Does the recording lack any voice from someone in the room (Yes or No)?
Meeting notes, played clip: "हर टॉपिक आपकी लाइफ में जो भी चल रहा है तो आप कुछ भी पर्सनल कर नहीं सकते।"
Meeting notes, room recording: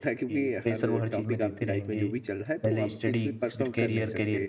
No